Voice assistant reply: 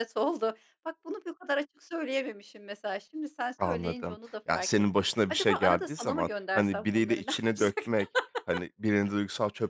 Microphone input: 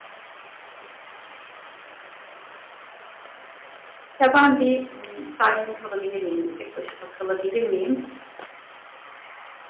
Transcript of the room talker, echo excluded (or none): "Ya, ben bir, ımm, sakin kalabilir miyim, bir tek başıma kalabilir miyim?"